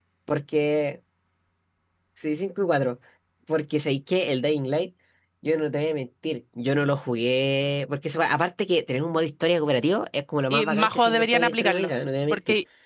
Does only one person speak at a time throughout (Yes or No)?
No